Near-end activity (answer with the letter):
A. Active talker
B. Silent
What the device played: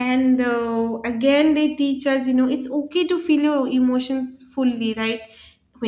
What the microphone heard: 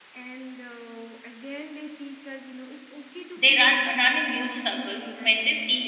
A